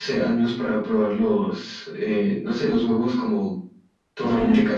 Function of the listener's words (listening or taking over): listening